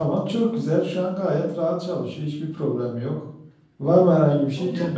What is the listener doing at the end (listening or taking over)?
listening